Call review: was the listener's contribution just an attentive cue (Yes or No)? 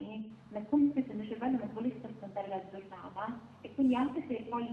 Yes